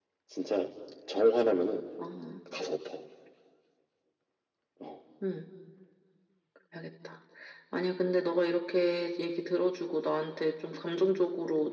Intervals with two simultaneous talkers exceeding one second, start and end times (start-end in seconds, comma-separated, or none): none